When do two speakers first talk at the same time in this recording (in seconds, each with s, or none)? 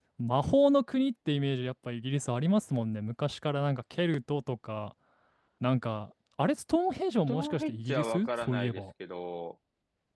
7.3 s